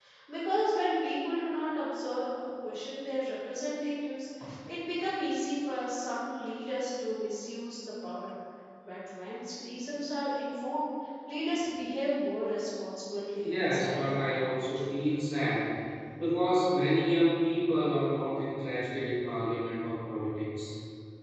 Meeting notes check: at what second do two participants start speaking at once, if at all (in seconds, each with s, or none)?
13.4 s